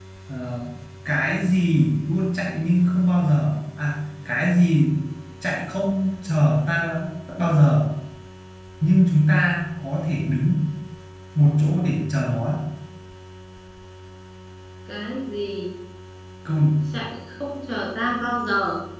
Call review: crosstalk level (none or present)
none